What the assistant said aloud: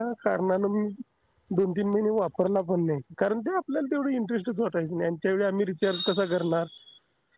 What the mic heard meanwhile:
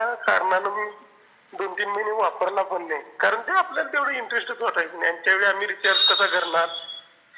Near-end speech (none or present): none